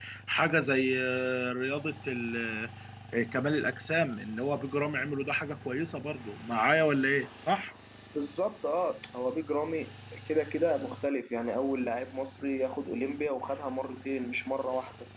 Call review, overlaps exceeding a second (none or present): none